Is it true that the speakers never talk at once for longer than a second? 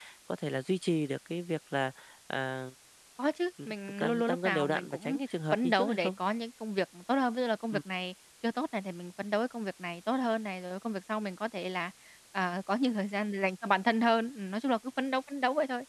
No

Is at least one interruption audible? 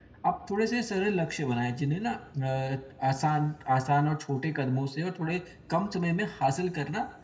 No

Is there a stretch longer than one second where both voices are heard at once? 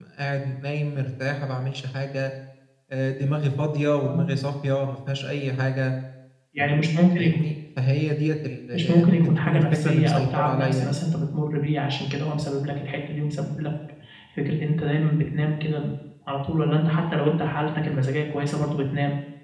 Yes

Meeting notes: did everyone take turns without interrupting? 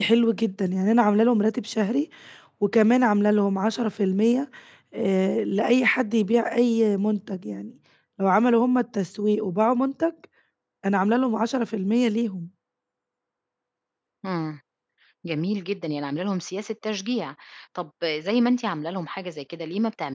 Yes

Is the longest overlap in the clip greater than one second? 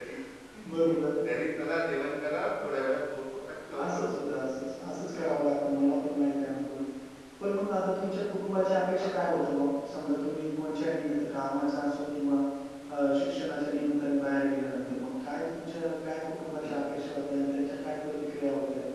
No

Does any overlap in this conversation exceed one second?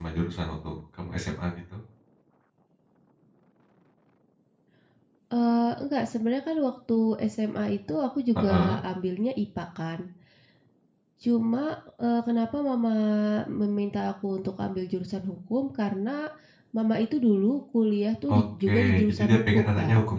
Yes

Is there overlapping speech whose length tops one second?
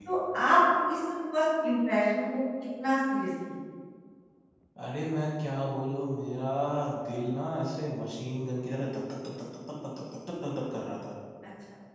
No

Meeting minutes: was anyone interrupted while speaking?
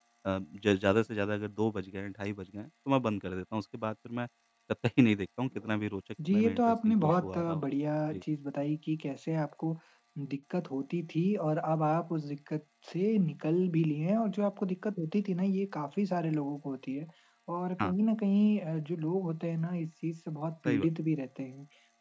Yes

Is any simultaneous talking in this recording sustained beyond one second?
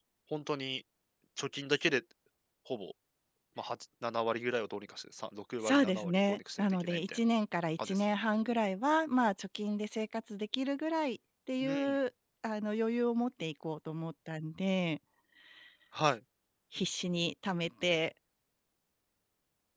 Yes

